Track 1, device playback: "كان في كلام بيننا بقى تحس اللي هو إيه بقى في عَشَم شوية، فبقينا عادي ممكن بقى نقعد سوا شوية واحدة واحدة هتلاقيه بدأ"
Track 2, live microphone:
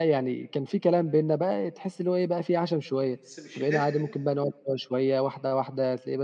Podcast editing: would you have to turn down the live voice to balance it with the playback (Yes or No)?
No